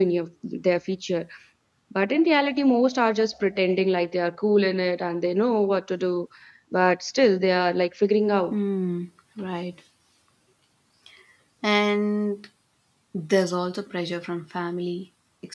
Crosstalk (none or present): none